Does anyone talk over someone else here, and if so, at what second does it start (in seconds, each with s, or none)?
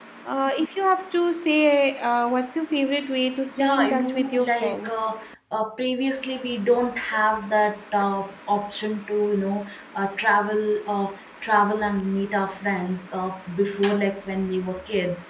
3.5 s